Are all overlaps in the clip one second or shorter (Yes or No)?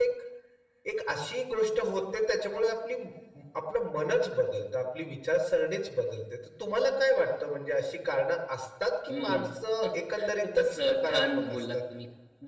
No